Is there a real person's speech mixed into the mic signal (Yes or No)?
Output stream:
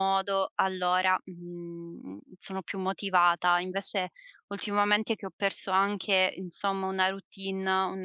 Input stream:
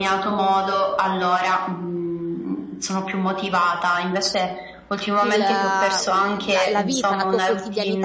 Yes